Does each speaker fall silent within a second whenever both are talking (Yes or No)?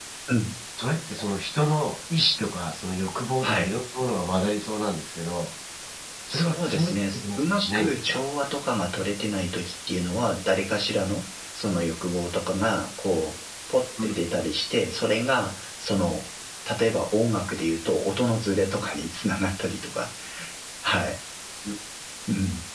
No